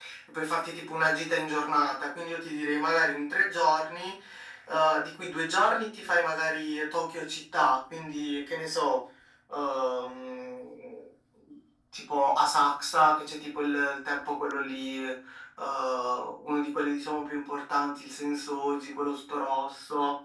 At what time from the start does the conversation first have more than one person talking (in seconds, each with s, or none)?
none